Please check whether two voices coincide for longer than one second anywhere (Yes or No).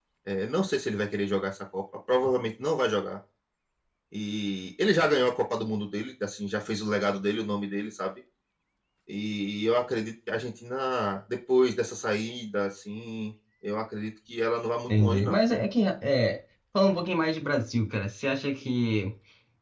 No